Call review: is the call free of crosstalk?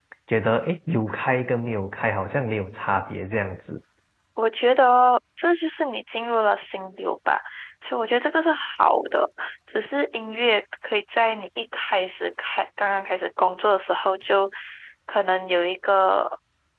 Yes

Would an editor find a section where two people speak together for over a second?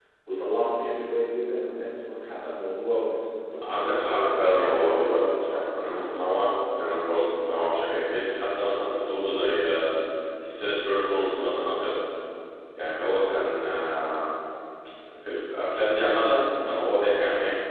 Yes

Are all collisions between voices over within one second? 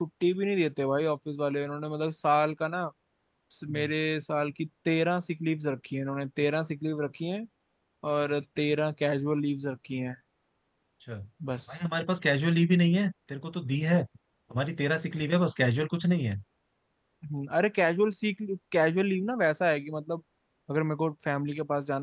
Yes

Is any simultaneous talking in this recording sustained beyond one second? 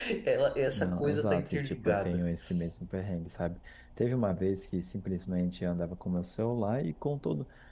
Yes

